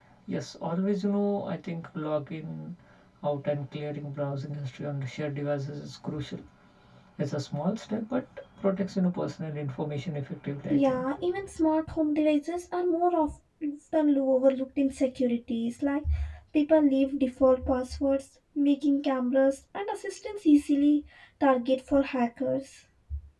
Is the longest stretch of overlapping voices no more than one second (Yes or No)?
Yes